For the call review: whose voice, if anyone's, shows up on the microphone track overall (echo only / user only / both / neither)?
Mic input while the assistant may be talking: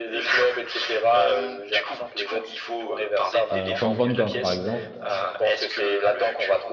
both